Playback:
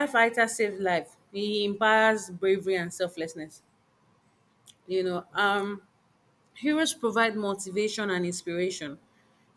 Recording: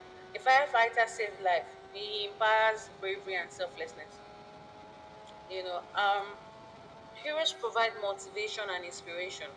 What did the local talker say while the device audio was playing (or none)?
none